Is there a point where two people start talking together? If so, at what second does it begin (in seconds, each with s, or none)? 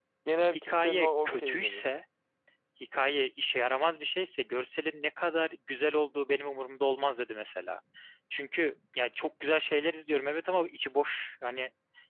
0.5 s